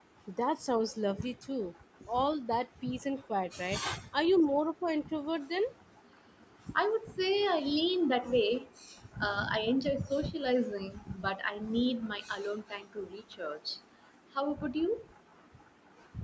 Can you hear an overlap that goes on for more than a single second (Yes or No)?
No